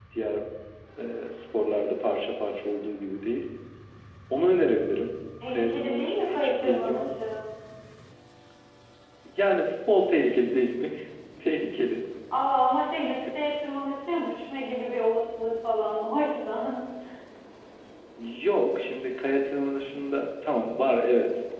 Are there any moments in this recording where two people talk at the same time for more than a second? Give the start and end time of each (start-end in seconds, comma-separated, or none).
5.5-7.1